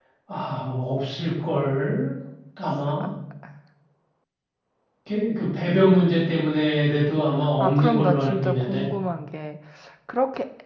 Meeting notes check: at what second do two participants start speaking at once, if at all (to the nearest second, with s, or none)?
8 s